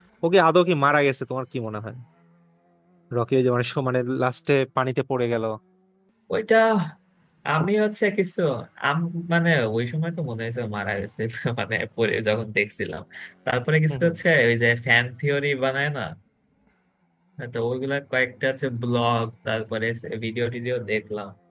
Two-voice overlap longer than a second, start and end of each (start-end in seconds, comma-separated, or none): none